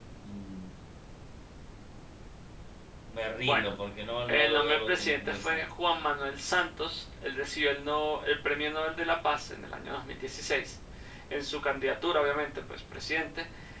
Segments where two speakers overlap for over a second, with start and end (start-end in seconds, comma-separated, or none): 4.3-5.7